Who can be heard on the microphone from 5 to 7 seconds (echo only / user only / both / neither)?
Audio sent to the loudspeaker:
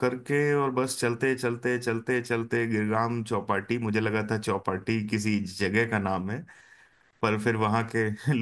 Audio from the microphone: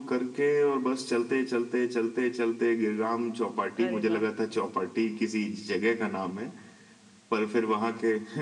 echo only